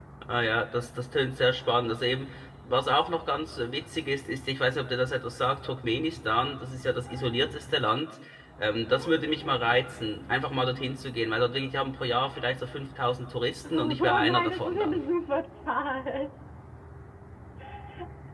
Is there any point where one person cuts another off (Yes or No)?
Yes